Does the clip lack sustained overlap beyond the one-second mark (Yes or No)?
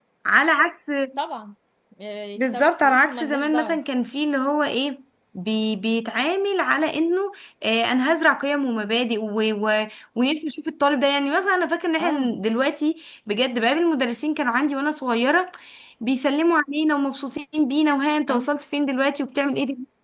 No